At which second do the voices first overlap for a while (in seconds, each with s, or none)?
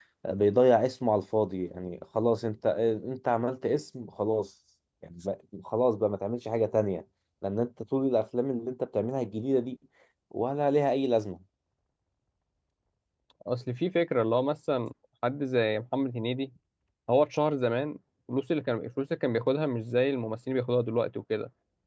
none